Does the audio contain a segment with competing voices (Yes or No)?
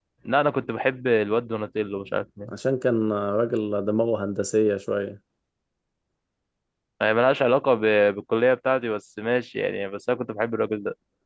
No